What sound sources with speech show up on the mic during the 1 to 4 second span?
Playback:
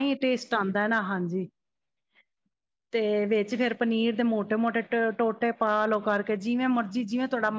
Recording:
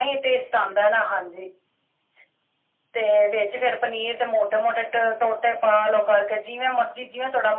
echo only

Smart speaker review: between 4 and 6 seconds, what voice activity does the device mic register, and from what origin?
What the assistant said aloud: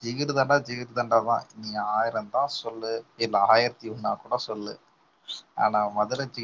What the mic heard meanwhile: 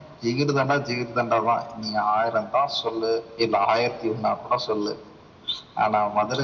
echo only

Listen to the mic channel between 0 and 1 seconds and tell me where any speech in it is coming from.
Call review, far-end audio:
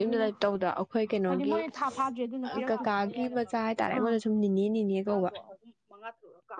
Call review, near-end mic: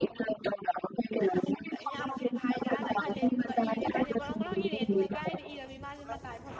echo only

